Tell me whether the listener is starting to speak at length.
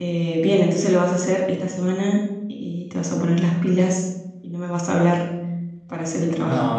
Yes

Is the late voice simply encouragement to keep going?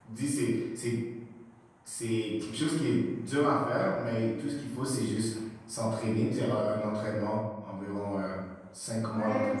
No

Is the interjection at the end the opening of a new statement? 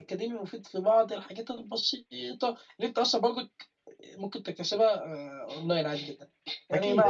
No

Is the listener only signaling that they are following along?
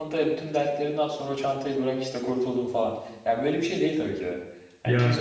No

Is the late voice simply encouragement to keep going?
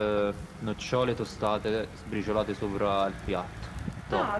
No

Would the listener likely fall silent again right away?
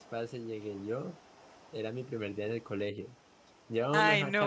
Yes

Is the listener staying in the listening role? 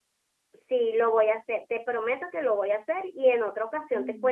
Yes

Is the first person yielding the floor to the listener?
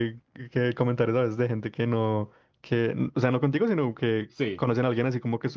No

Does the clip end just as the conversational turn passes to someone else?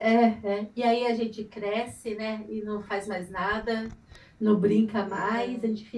No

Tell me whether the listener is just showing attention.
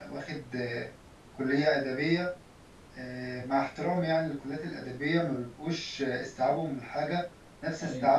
Yes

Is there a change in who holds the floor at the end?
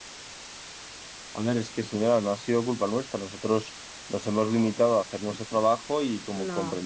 No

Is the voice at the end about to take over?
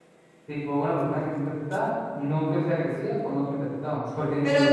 Yes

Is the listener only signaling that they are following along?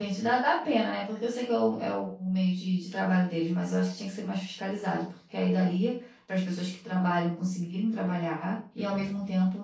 Yes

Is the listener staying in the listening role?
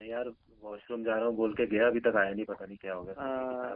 No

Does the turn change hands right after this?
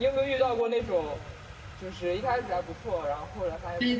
Yes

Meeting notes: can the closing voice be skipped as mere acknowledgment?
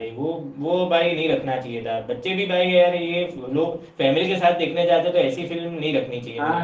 No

